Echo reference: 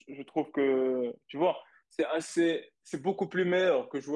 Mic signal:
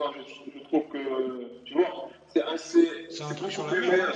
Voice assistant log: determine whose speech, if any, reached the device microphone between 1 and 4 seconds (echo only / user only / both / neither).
both